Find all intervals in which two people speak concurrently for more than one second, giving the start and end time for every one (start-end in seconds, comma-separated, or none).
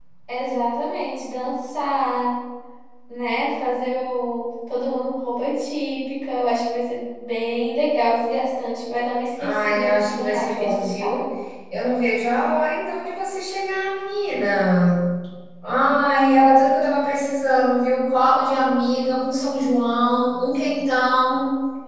9.4-11.2